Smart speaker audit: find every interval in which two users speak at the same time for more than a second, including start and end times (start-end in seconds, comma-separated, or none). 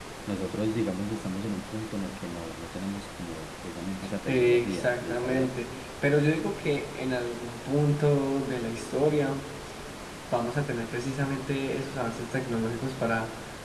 4.3-5.5